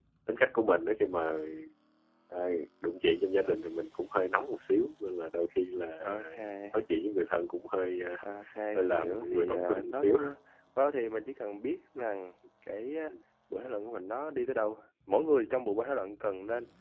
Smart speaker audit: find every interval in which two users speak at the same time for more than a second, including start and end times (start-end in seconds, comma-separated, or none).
8.8-10.2